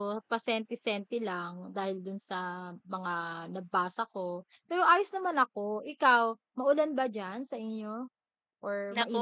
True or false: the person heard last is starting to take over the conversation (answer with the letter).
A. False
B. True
B